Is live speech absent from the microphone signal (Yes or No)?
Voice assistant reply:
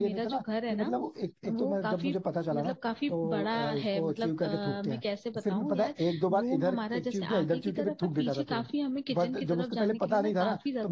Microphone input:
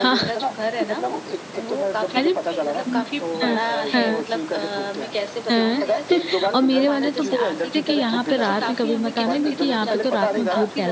No